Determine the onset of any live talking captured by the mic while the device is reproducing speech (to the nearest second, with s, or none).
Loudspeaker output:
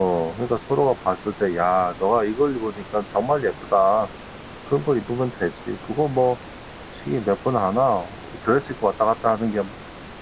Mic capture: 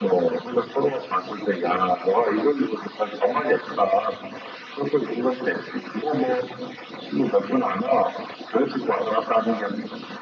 none